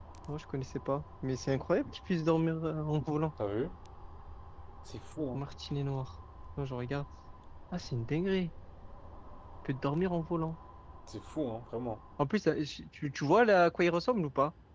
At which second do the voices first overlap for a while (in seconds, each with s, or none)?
none